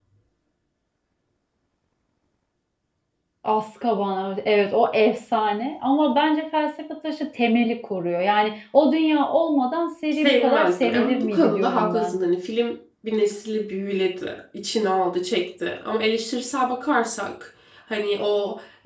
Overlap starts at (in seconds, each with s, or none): 10.2 s